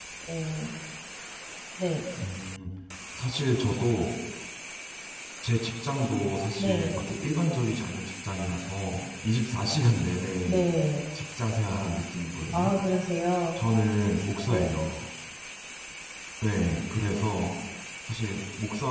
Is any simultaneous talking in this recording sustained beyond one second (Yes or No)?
No